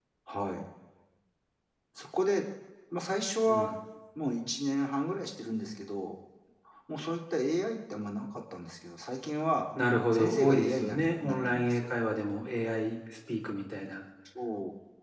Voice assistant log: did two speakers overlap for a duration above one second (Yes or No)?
Yes